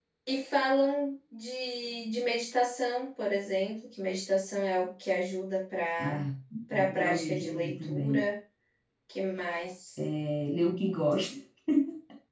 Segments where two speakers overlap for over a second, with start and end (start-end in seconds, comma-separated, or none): 7.0-8.2